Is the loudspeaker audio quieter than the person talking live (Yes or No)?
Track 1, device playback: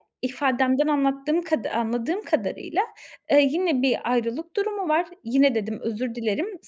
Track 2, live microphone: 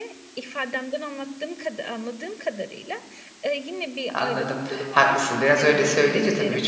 Yes